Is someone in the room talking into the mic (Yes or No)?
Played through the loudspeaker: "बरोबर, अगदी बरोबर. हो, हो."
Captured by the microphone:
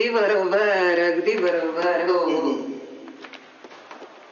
Yes